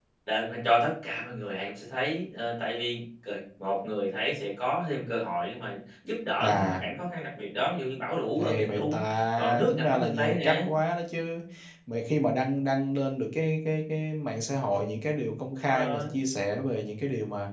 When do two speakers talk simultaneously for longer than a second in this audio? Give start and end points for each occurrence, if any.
8.4-10.6

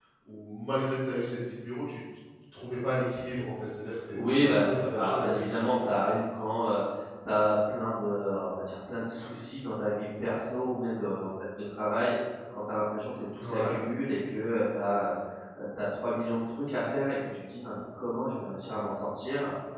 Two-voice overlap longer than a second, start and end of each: 4.1-5.8

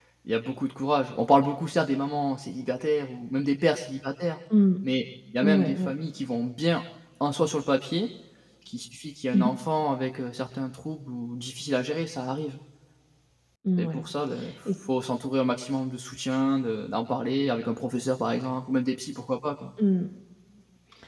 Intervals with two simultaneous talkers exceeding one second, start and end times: none

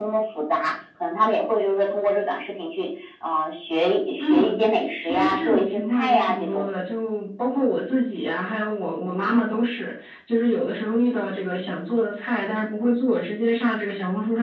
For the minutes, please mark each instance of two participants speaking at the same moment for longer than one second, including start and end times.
5.0-6.7

